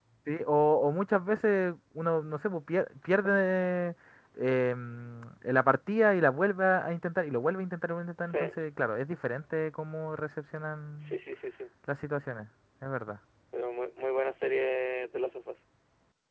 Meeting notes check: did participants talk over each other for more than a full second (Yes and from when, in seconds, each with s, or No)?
No